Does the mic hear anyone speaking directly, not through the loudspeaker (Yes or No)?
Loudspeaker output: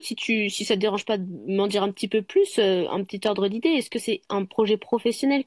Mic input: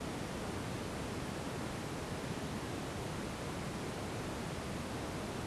No